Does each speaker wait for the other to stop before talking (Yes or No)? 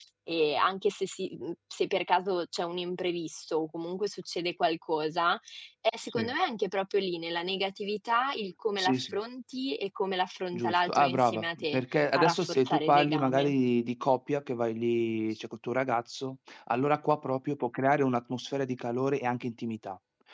No